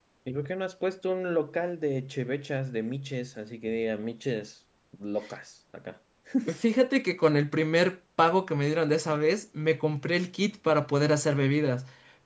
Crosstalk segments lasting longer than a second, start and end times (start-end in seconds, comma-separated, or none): none